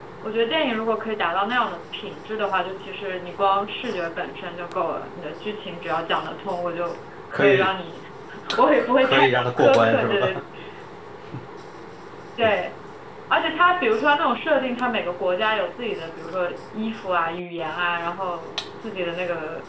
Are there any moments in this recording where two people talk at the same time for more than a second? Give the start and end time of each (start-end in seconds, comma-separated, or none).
8.8-10.3